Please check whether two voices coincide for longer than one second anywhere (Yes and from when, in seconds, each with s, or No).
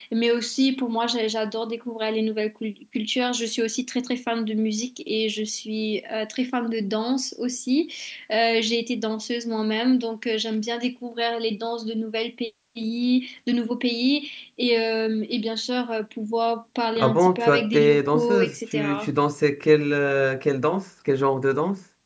Yes, from 17.0 s